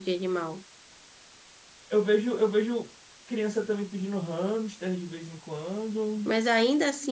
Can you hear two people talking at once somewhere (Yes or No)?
No